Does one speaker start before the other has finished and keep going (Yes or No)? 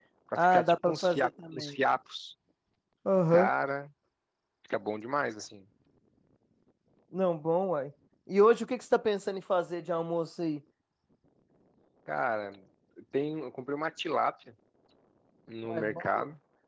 Yes